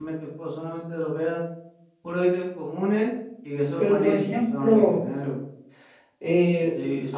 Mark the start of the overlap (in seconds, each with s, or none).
3.8 s